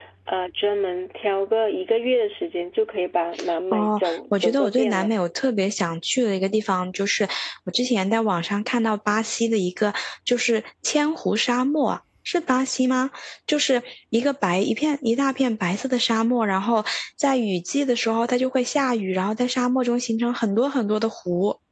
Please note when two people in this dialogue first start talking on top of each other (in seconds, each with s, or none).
3.7 s